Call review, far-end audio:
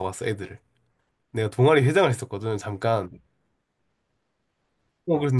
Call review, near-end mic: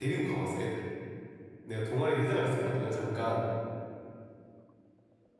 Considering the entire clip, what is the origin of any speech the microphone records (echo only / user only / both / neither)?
echo only